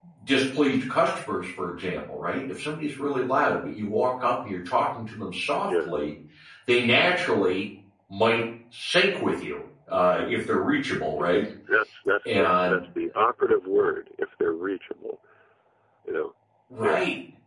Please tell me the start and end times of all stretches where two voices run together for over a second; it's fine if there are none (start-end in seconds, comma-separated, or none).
none